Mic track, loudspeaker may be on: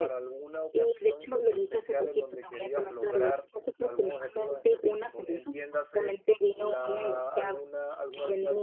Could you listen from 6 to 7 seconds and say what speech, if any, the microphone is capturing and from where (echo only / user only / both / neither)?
both